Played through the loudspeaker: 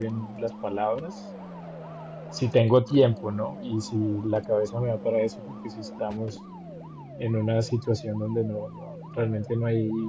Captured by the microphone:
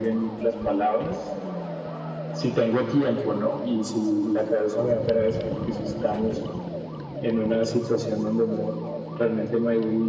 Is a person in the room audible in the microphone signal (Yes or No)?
No